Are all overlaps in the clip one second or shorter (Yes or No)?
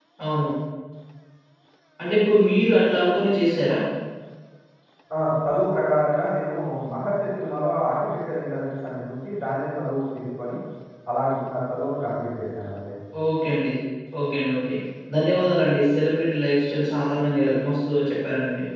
Yes